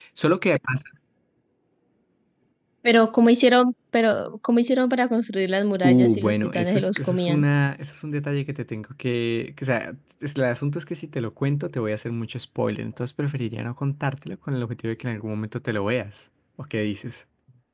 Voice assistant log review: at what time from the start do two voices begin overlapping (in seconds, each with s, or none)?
5.8 s